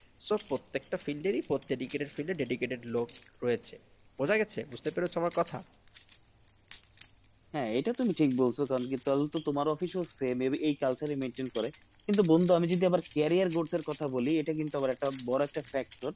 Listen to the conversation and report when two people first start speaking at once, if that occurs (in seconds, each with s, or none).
none